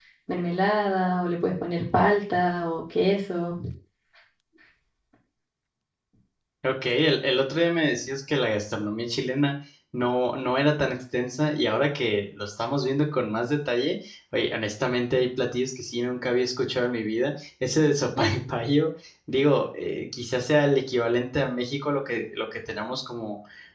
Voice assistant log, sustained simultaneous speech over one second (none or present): none